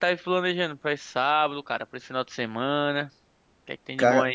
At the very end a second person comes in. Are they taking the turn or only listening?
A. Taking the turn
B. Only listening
A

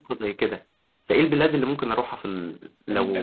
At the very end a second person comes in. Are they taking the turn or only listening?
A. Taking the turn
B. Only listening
A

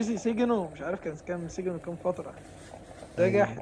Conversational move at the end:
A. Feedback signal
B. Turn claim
A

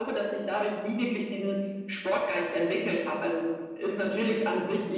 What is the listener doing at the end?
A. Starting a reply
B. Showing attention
B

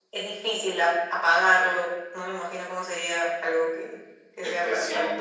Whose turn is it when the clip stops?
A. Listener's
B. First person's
A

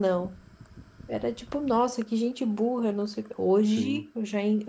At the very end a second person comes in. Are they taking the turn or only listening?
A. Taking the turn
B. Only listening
B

